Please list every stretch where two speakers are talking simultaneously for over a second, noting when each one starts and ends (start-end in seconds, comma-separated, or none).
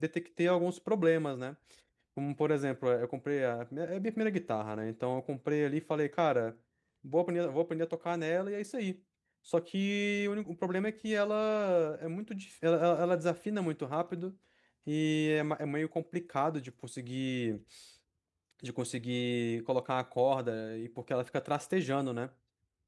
none